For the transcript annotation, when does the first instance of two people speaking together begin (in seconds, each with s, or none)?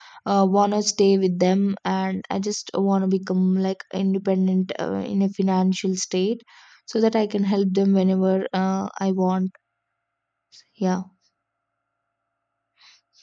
none